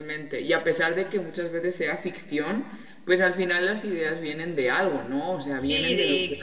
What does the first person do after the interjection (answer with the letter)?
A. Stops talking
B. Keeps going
A